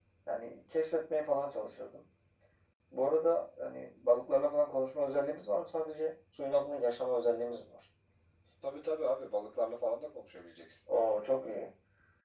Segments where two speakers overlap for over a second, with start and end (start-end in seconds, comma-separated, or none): none